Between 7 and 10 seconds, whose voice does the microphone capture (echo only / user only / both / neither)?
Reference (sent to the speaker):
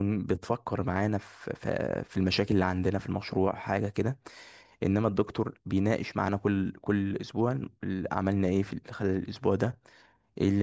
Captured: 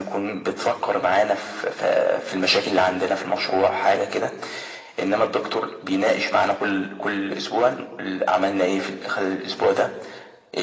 echo only